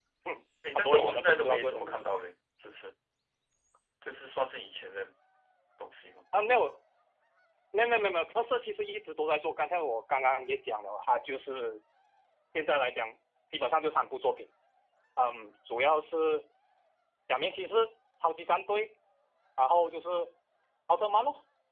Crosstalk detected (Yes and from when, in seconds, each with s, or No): Yes, from 0.8 s